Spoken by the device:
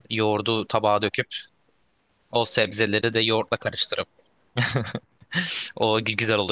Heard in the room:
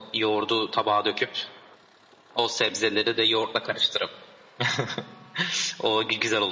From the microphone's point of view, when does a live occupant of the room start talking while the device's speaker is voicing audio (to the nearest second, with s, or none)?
none